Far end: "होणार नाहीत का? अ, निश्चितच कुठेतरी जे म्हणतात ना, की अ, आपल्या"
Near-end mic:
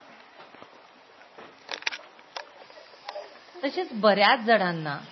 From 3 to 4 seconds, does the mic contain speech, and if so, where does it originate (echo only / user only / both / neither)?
user only